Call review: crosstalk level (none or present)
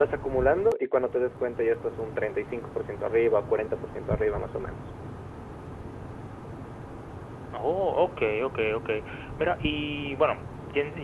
none